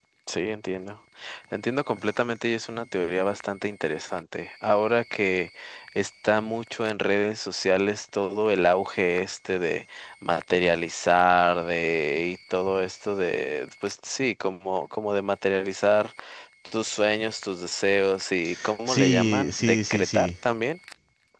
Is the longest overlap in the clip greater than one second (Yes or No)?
Yes